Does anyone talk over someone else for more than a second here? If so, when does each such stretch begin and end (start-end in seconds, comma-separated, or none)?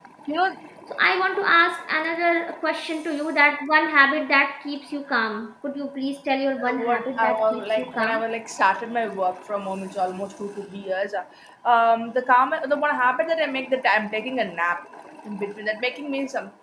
6.7-8.2